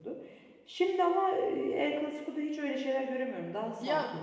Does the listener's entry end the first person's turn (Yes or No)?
Yes